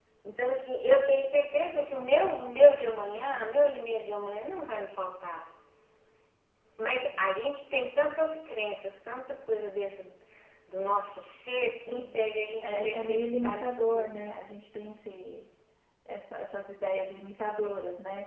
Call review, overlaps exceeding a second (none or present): present